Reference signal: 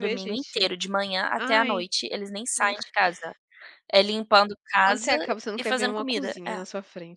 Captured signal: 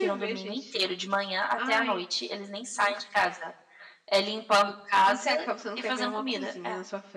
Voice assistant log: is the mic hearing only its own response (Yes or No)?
Yes